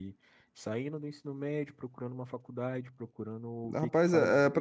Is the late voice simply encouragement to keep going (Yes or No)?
No